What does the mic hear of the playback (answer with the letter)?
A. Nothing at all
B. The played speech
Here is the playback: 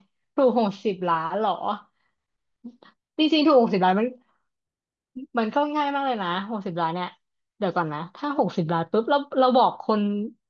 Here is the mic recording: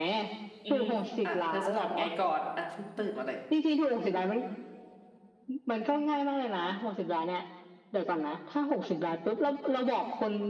B